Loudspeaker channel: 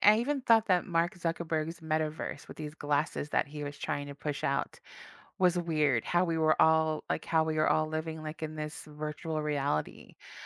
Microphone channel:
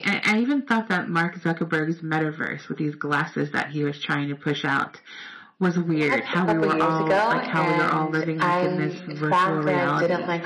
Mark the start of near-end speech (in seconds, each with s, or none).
5.9 s